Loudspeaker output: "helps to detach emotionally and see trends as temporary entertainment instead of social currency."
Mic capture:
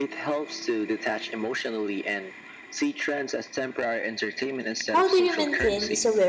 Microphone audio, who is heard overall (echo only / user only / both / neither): both